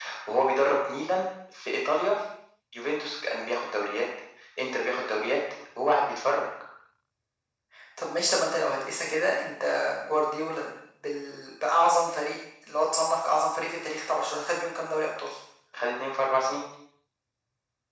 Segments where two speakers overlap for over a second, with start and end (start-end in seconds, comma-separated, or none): none